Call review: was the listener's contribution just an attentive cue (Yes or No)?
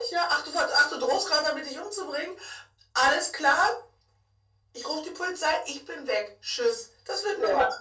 Yes